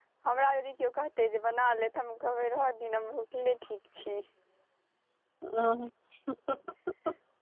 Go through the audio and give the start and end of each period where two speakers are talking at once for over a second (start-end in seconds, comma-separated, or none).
none